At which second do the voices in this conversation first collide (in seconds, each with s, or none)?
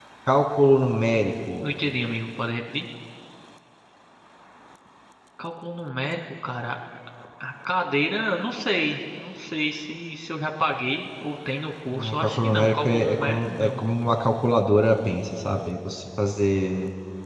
11.9 s